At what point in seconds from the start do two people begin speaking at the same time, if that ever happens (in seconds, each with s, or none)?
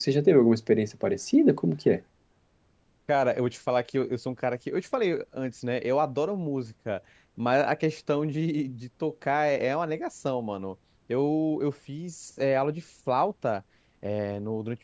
none